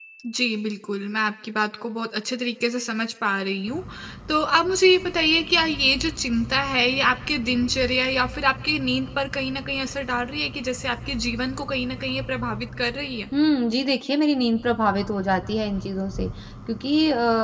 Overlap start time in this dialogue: none

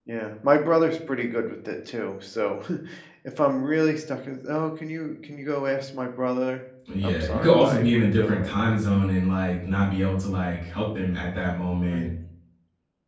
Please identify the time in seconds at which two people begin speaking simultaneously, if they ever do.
6.9 s

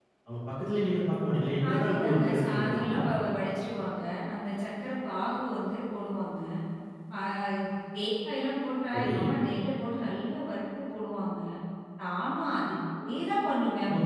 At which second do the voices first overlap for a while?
1.7 s

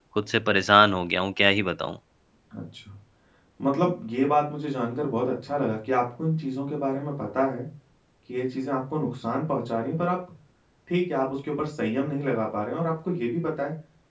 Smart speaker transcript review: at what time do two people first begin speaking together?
none

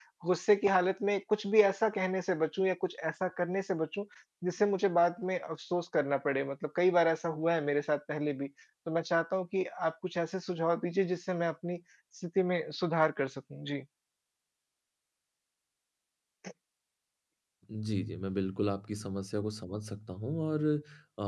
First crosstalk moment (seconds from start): none

